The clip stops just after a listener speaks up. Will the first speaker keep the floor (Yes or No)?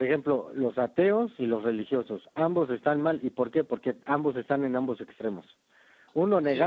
Yes